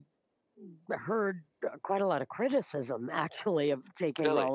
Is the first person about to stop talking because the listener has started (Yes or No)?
No